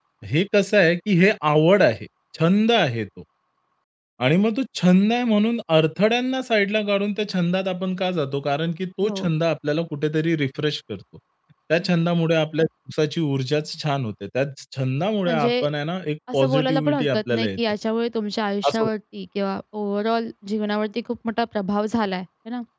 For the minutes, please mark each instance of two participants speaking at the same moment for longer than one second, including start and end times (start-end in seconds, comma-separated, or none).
16.3-17.6